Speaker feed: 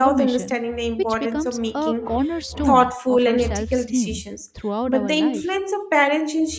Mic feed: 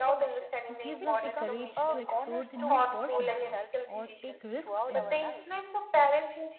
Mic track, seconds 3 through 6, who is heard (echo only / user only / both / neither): both